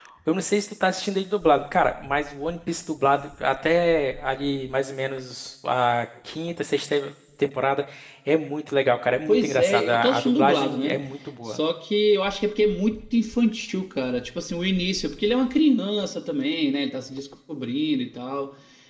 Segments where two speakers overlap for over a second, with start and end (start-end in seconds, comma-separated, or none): 9.3-11.0